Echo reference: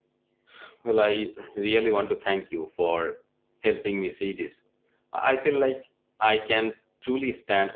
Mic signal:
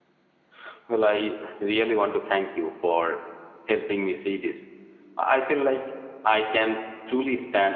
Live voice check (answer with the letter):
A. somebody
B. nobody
B